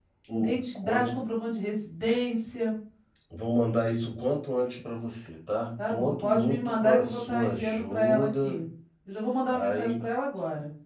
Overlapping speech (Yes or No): Yes